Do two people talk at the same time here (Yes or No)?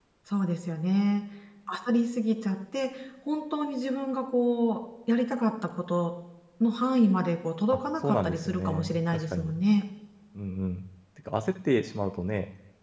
Yes